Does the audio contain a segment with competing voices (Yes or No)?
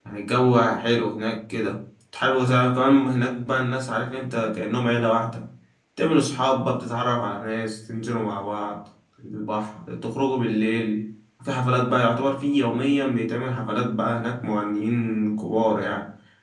No